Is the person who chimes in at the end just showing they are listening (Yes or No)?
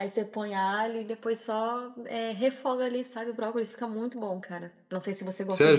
No